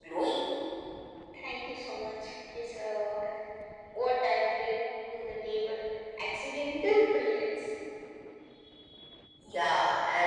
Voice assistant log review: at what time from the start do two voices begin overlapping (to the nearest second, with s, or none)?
none